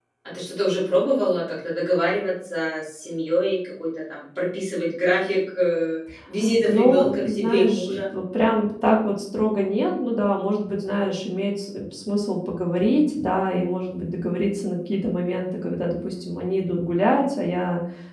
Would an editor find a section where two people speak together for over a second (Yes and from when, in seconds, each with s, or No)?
Yes, from 6.7 s